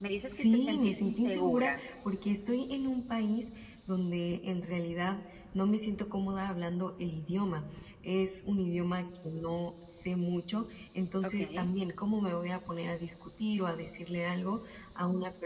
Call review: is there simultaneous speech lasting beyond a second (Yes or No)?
Yes